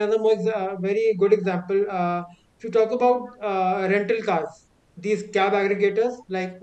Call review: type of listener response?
listening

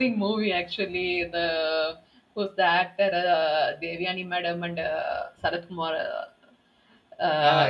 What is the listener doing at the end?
taking over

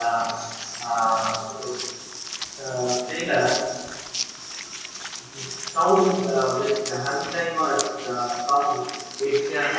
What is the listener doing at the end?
listening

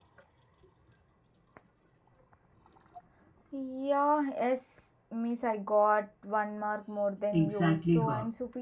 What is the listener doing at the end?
taking over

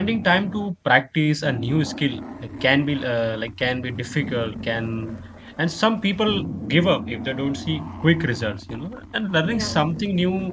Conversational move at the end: listening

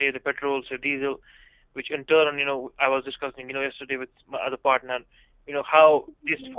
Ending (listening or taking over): listening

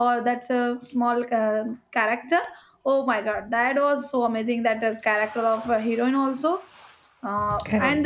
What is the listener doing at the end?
listening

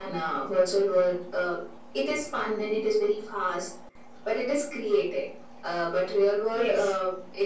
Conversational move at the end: listening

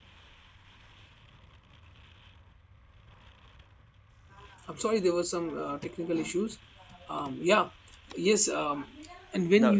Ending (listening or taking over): listening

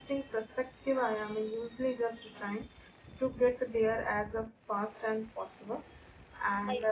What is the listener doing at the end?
listening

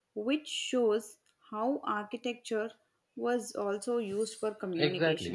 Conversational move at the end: taking over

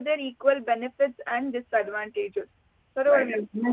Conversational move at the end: taking over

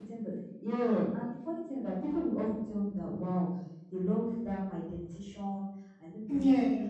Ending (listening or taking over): listening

